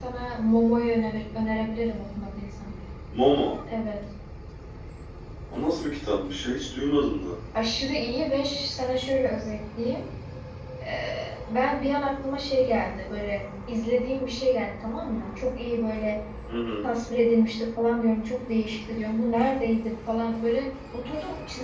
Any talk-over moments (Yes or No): No